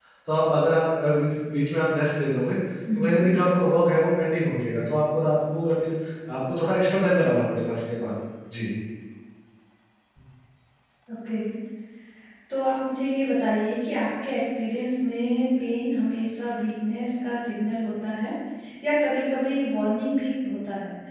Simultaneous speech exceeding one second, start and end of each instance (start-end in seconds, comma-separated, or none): none